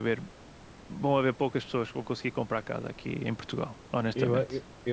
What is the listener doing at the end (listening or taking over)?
taking over